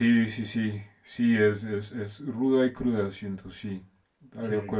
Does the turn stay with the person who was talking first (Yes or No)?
Yes